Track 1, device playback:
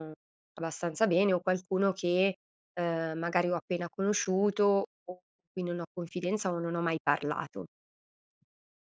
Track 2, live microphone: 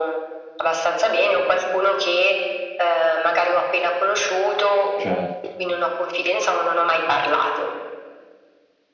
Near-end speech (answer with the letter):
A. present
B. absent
A